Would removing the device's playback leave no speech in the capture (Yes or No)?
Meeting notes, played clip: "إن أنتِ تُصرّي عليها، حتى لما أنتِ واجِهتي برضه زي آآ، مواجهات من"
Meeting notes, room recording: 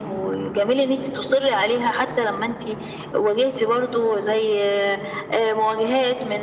Yes